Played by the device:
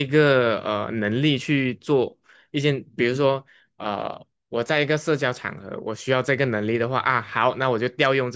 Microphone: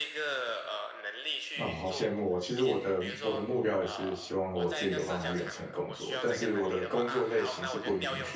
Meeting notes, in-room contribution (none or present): present